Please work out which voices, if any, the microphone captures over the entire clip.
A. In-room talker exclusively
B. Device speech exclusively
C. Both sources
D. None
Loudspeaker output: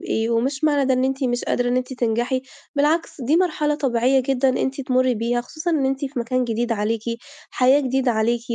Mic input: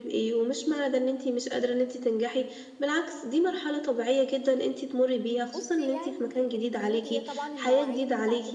C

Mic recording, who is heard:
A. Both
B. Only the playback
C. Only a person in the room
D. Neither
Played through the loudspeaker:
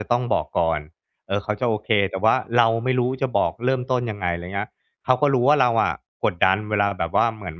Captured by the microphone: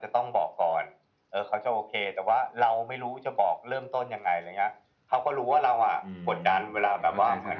A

